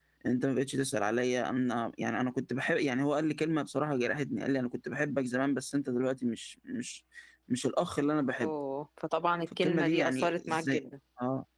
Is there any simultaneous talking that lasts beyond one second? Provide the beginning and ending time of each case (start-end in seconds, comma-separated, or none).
9.6-10.8